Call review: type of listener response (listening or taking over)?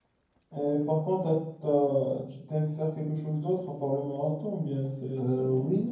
taking over